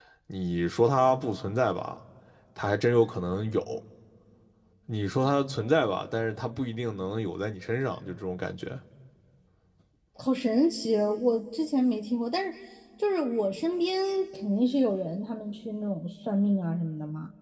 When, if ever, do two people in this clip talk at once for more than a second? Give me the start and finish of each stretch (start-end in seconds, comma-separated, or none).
none